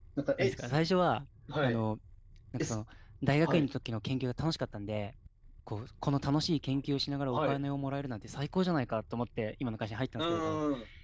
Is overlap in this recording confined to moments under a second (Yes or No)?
Yes